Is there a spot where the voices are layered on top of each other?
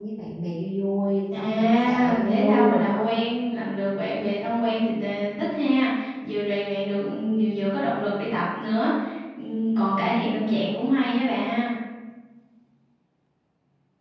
Yes, from 1.3 s

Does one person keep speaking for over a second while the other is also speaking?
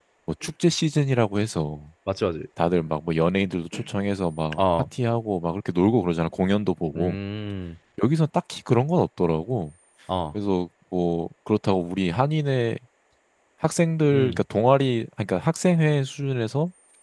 No

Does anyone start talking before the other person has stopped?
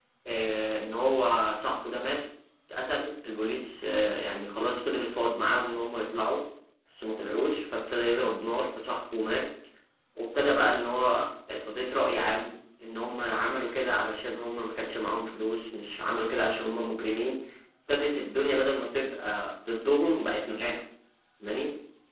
No

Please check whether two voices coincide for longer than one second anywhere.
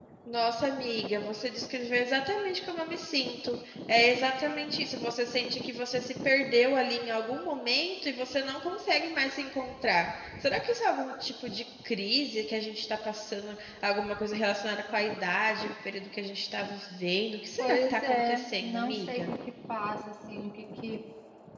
Yes, from 17.6 s

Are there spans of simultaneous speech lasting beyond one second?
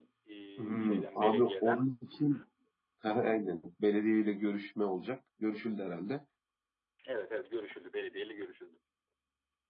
Yes, from 0.6 s

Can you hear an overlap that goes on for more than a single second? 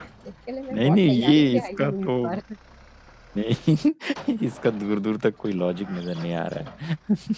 Yes, from 0.7 s

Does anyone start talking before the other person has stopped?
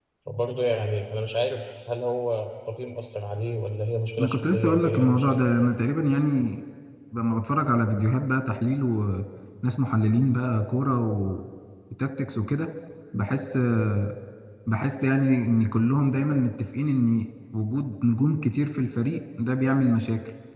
Yes, from 4.2 s

